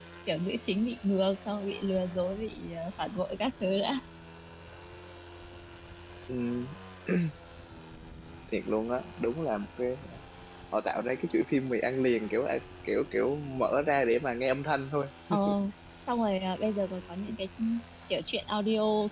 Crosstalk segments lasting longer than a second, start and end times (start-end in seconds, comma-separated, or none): none